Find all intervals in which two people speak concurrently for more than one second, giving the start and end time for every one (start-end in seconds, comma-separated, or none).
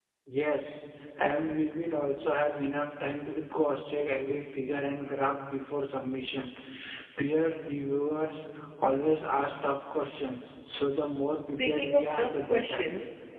11.6-12.8